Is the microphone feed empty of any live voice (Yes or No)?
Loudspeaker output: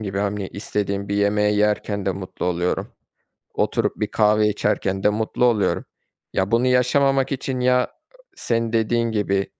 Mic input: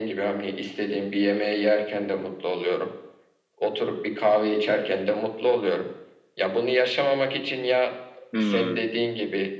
No